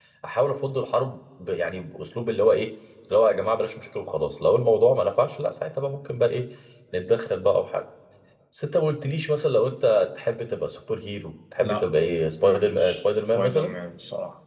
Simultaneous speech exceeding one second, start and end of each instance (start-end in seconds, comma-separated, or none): 12.4-13.7